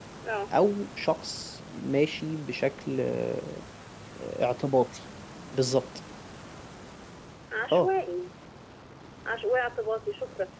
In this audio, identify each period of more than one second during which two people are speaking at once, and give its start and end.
none

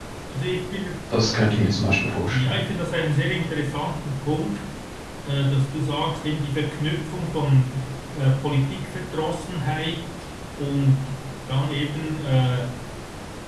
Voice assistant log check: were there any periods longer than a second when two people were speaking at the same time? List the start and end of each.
none

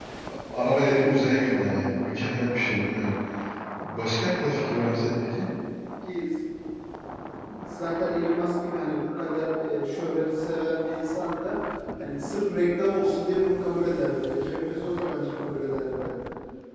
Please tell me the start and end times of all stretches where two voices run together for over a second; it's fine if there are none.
none

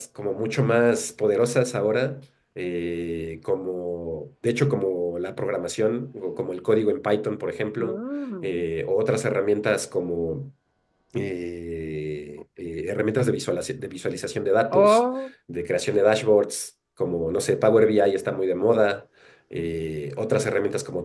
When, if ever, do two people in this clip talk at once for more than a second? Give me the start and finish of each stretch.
none

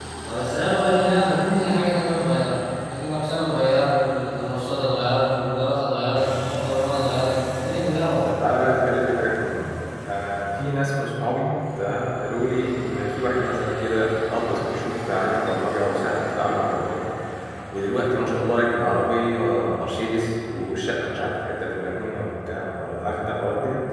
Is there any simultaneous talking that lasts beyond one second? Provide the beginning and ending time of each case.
none

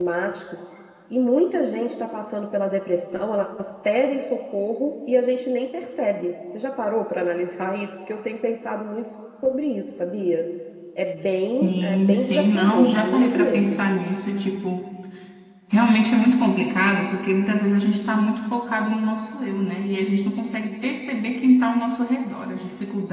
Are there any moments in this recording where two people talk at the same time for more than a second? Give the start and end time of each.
11.4-13.8

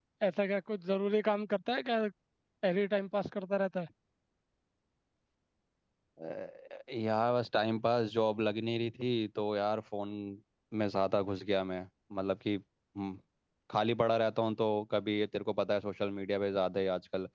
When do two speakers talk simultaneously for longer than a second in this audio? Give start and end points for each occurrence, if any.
none

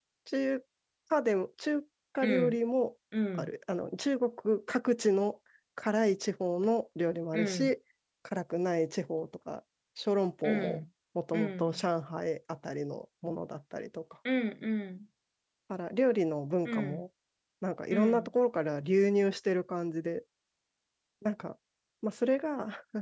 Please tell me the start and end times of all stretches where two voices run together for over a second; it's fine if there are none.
none

